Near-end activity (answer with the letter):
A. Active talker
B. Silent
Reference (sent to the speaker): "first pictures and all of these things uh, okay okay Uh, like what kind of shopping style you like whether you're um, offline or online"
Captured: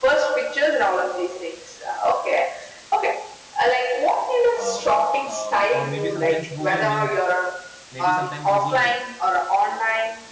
A